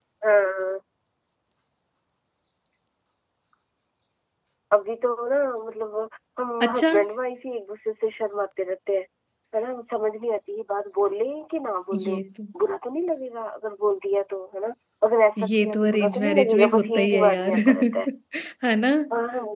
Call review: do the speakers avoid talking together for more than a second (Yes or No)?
No